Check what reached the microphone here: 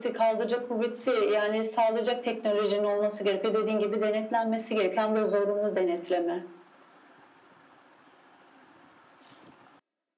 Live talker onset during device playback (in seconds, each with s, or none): none